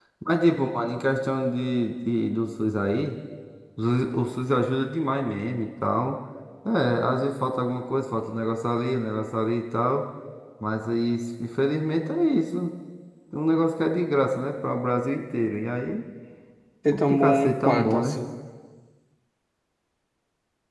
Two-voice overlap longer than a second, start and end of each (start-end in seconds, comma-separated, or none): 16.9-18.2